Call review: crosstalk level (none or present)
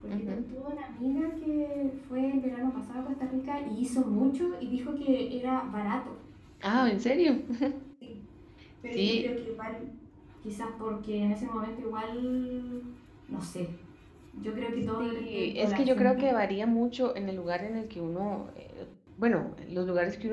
present